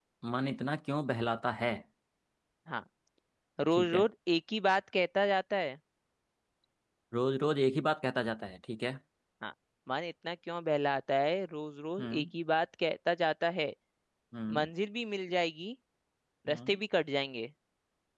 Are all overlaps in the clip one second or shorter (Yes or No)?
Yes